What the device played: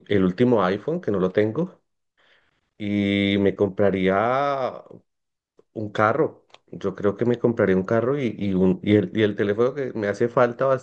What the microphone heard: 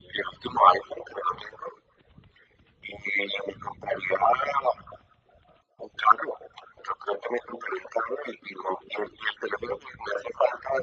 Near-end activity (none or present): none